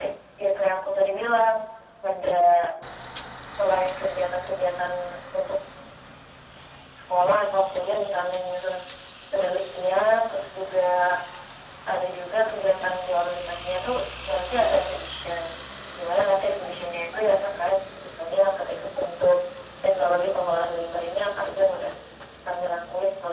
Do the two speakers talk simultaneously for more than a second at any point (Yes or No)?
No